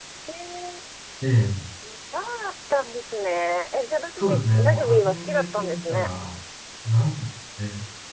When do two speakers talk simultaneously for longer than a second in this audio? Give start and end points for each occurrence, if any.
4.2-6.1

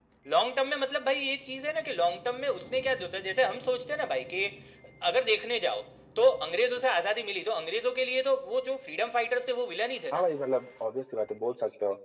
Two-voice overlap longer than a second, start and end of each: none

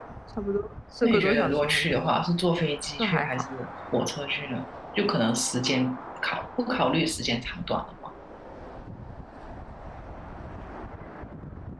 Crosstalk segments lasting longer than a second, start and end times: 1.0-2.2

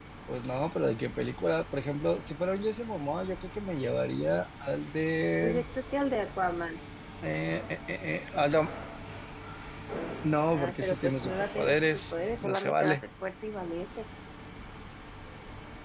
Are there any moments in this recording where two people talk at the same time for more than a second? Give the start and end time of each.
10.5-13.0

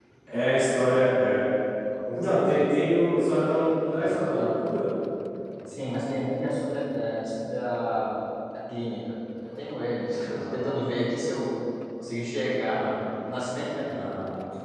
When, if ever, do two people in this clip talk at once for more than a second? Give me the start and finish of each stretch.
none

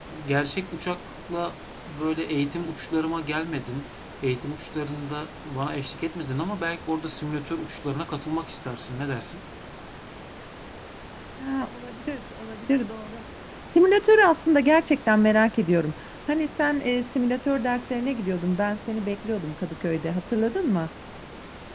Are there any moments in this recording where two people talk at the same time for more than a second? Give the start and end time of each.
none

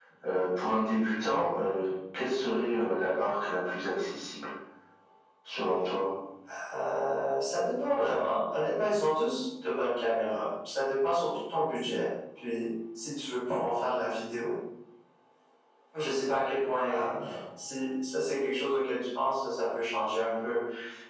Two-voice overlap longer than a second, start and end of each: none

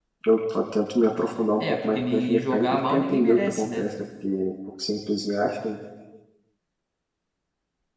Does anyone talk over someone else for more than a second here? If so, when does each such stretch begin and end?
1.6-3.9

